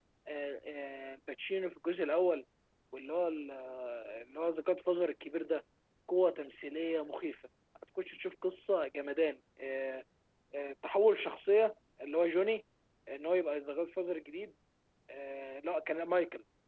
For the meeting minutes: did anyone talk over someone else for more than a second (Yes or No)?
No